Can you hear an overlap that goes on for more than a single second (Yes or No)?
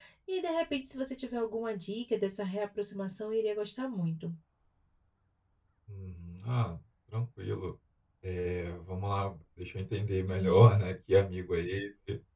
No